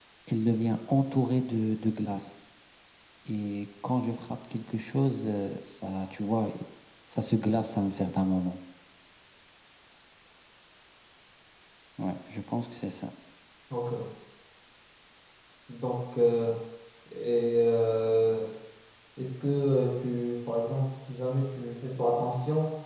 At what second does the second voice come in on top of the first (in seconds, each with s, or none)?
none